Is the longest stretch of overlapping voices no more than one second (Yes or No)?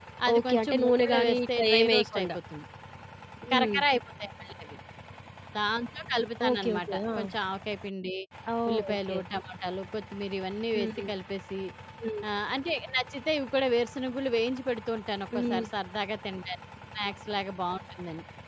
No